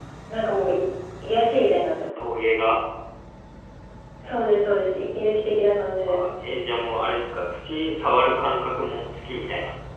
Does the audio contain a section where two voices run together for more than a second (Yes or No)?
No